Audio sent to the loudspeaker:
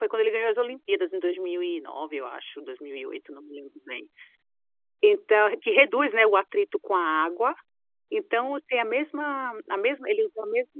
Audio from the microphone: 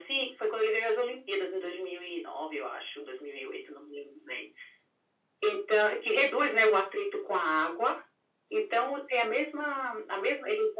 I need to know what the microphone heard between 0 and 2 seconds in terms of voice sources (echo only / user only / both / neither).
echo only